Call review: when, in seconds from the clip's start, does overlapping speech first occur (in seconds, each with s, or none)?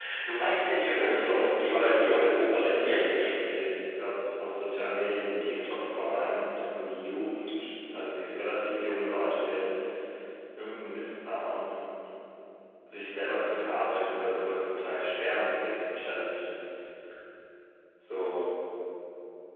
0.8 s